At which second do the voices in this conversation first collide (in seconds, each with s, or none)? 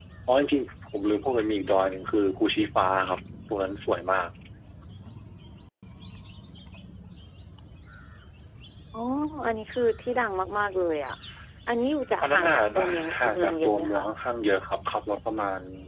12.2 s